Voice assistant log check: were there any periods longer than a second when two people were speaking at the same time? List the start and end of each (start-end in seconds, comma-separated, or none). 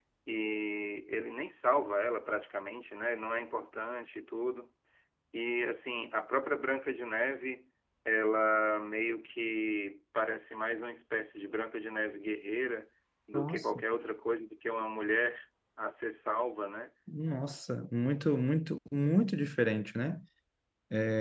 none